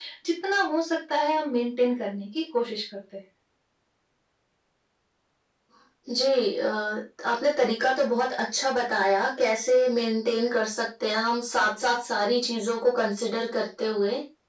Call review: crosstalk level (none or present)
none